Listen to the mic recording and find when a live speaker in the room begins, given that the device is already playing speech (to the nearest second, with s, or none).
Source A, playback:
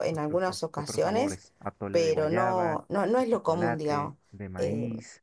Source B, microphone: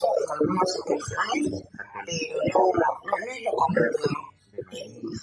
none